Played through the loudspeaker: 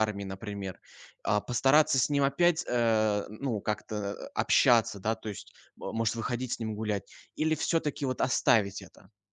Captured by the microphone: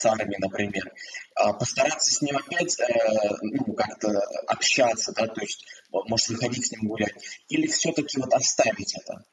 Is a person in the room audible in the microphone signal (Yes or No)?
No